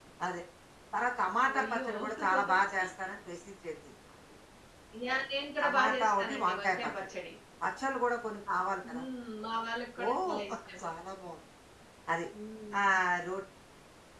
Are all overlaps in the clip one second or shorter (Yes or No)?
No